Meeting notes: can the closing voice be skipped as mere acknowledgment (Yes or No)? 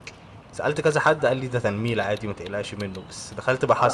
Yes